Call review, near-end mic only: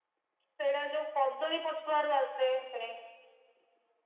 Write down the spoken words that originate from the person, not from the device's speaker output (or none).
none